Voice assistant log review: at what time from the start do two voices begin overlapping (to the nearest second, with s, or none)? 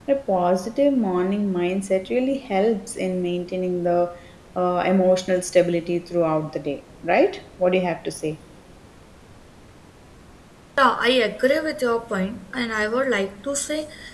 none